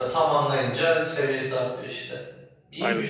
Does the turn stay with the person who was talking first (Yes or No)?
No